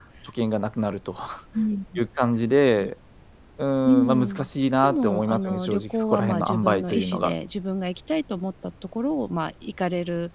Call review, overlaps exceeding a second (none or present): present